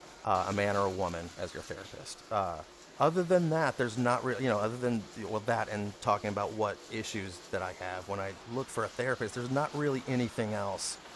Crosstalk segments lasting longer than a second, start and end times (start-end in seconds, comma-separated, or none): none